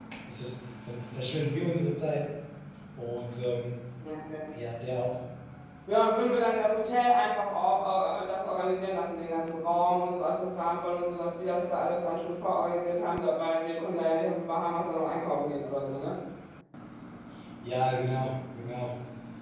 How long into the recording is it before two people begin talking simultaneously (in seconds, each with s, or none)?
none